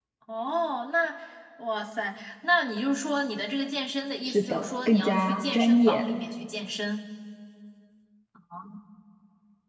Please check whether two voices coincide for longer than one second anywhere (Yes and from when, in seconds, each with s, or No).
Yes, from 4.2 s